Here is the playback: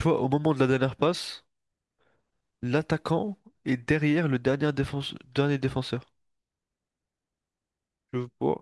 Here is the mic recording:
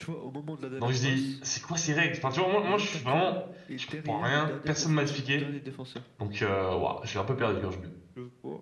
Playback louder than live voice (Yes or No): No